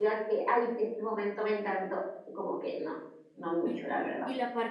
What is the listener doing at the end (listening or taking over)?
taking over